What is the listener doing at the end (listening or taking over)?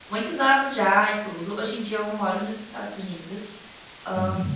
listening